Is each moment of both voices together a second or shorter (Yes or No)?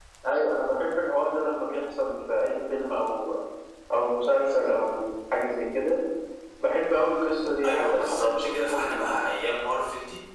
No